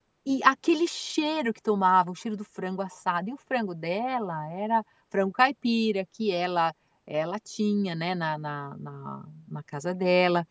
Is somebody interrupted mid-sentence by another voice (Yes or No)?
No